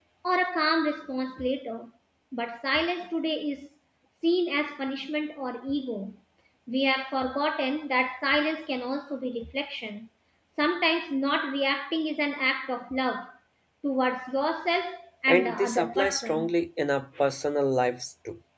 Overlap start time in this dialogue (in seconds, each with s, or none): 15.3 s